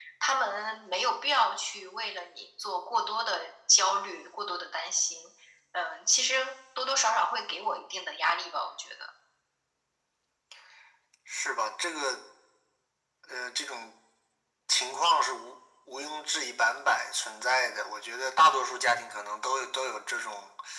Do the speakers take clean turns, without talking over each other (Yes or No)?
Yes